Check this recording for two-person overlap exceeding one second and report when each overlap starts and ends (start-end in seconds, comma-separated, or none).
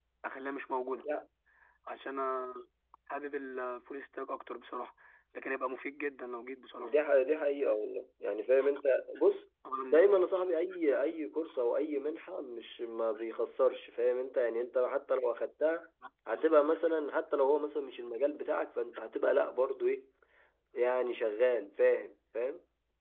none